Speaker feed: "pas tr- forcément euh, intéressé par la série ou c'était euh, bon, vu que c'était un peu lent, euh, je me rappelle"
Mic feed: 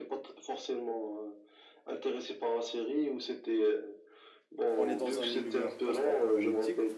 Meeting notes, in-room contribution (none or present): present